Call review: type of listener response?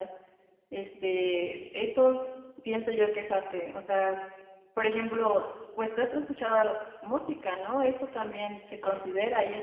listening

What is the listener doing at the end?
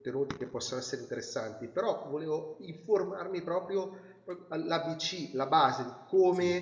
listening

